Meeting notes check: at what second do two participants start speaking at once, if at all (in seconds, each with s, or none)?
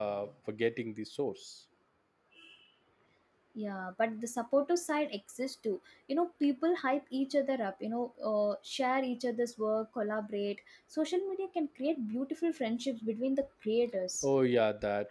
none